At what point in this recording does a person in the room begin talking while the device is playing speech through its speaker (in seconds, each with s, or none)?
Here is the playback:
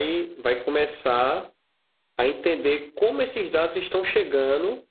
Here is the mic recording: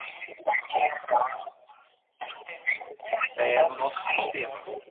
3.3 s